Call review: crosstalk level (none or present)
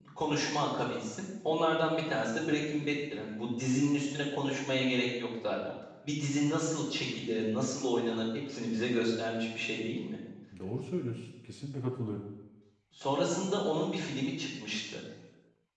none